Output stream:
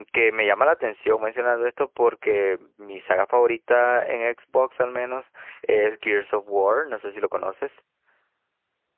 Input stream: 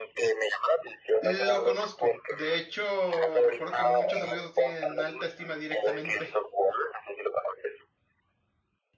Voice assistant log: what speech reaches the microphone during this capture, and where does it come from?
both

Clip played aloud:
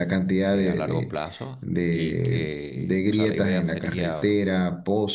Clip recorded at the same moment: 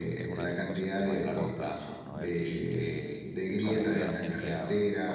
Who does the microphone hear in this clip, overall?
both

